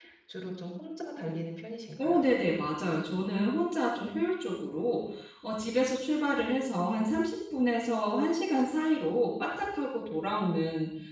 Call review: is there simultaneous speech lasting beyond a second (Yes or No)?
No